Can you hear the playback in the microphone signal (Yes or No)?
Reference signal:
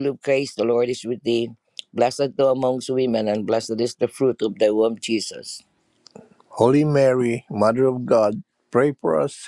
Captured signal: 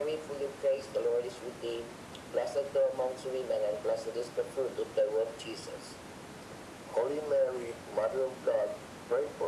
Yes